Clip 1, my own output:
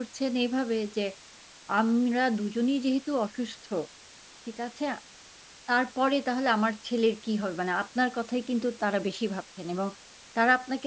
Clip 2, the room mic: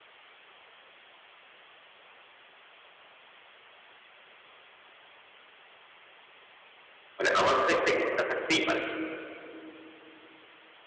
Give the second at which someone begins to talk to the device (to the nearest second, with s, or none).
7 s